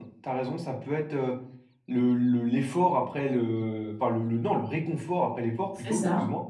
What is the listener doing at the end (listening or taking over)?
listening